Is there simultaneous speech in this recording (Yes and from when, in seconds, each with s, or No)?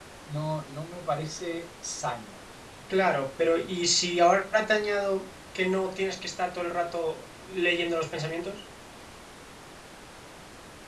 No